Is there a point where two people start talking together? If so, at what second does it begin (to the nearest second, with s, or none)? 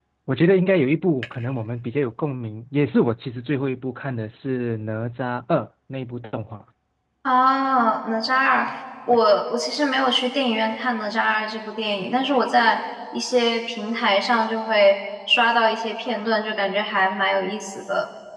none